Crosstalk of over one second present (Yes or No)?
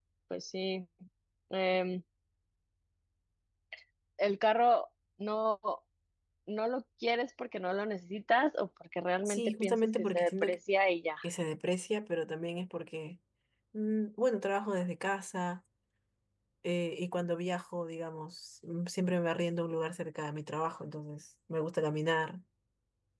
Yes